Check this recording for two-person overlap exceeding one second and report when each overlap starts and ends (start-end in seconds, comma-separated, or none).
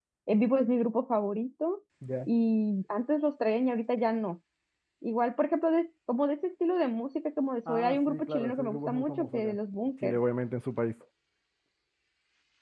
7.7-9.6